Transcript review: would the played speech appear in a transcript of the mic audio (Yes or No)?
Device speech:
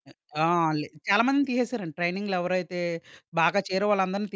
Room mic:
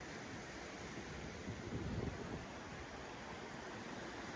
No